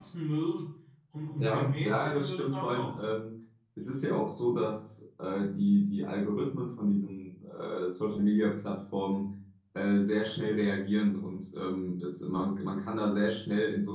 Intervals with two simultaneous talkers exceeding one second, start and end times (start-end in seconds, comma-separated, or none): 1.4-3.0